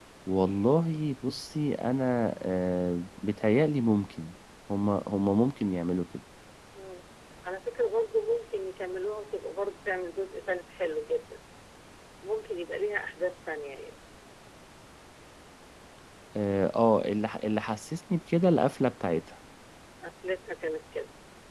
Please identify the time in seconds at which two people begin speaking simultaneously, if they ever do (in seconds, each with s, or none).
none